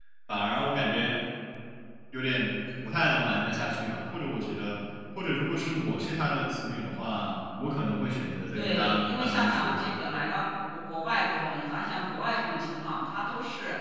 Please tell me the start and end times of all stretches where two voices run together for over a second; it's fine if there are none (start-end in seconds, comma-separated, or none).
8.5-9.8